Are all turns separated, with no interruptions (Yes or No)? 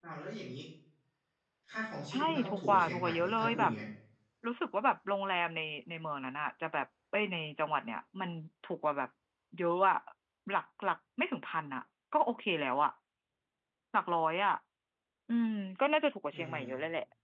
No